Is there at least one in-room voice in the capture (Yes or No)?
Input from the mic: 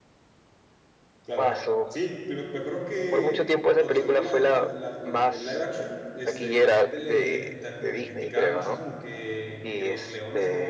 Yes